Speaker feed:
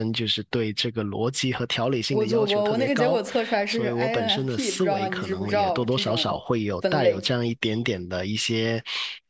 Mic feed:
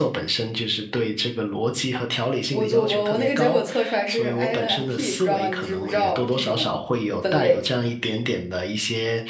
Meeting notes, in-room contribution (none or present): none